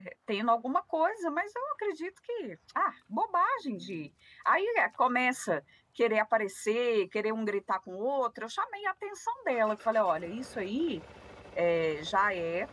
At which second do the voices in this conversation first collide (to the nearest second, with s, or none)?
none